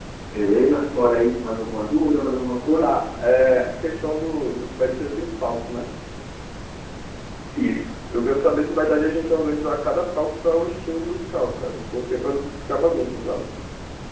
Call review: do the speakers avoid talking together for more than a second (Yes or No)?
Yes